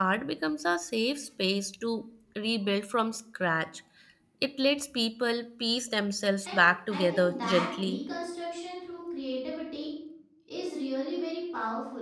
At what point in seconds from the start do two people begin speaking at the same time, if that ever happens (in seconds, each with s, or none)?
6.5 s